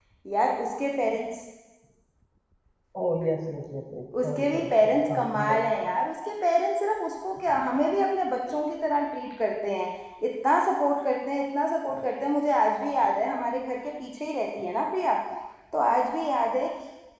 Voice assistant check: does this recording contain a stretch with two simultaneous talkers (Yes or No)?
Yes